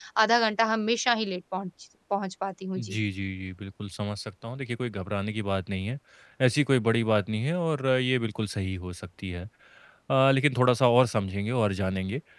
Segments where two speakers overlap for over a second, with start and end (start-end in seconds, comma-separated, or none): none